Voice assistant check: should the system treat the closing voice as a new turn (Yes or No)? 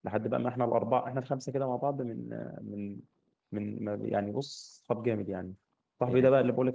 No